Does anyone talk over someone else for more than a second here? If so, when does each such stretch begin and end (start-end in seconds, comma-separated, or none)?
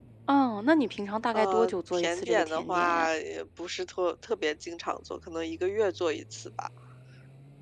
1.3-3.1